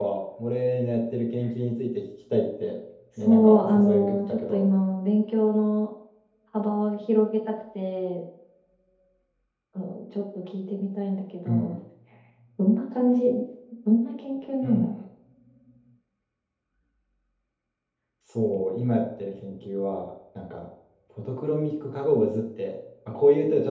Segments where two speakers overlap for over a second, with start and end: 3.2-4.7

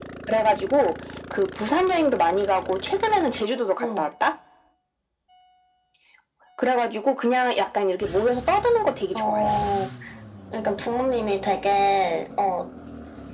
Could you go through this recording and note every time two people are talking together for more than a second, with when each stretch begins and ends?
none

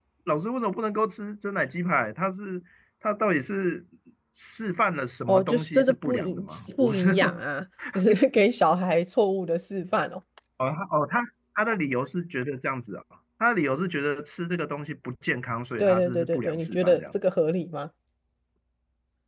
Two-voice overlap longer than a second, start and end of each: 5.3-7.2, 15.8-17.2

